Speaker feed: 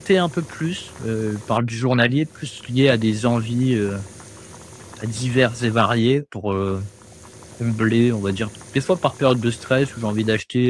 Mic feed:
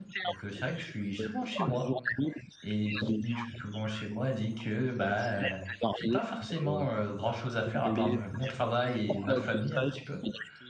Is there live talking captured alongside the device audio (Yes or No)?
Yes